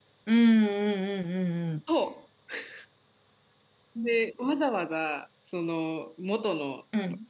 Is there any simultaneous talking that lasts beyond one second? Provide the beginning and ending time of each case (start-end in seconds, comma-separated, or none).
none